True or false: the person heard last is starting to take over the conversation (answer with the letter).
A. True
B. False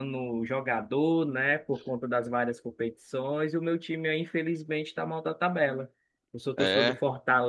B